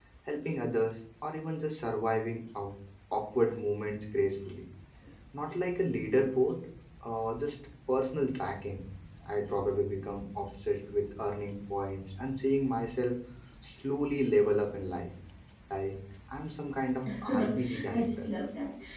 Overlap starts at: 17.1 s

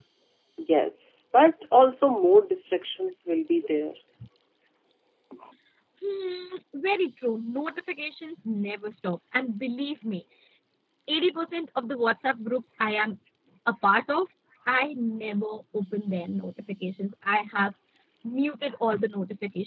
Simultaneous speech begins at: none

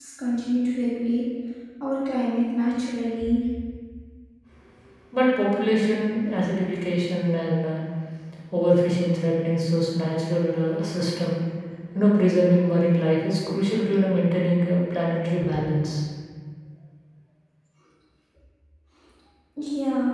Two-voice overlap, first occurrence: none

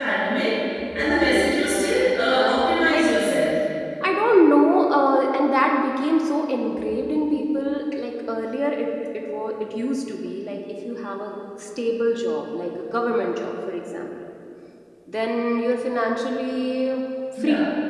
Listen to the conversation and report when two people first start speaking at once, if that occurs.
0.9 s

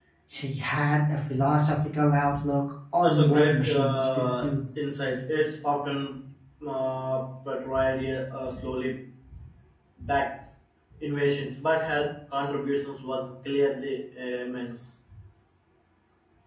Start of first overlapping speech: 3.0 s

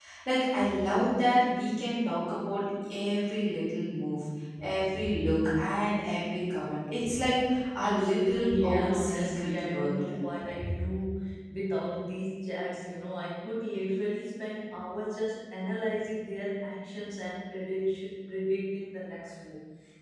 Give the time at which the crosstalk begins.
7.8 s

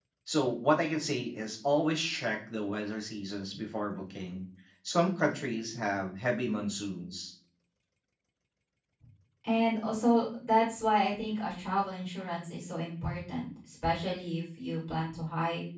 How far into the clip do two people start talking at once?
none

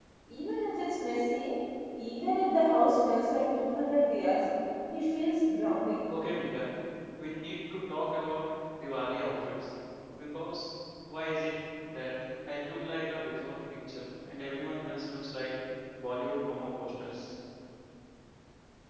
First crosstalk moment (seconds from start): none

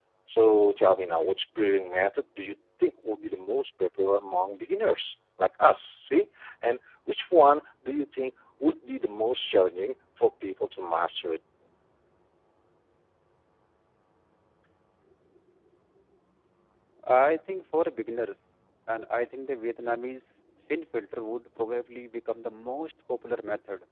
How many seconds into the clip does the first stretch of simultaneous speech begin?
none

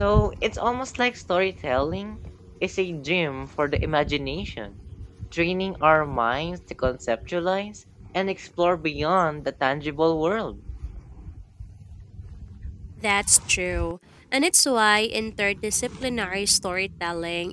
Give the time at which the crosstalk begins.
none

